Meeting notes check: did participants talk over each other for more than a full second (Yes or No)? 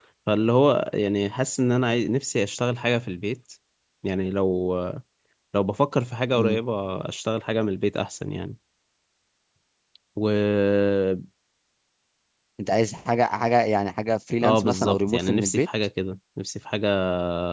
Yes